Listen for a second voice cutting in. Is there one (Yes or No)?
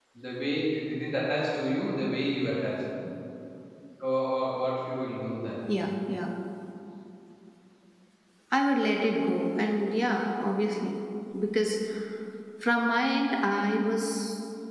No